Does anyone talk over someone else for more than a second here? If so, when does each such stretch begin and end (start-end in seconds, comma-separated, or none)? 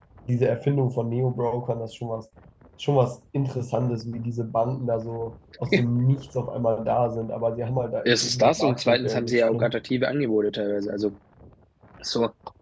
8.1-9.7